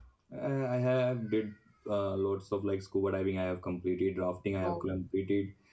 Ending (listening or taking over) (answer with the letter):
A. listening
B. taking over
A